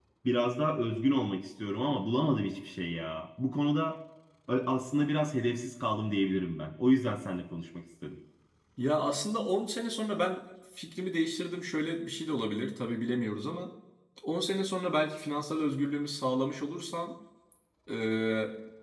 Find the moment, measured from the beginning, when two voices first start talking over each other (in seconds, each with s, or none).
none